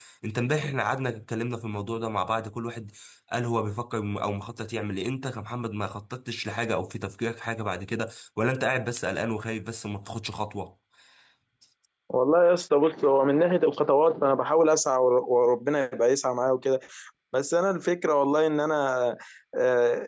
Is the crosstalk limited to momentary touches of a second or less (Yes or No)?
Yes